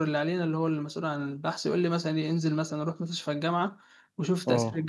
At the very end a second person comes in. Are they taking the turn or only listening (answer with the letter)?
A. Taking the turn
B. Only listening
B